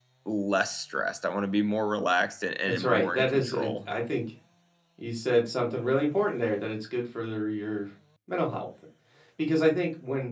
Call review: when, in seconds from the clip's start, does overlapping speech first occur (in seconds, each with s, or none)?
2.7 s